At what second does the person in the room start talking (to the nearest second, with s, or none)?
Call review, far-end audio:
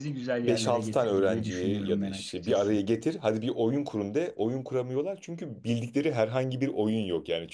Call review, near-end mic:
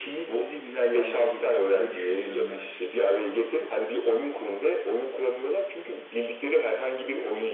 none